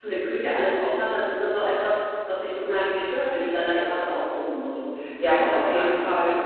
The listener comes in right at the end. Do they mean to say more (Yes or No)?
Yes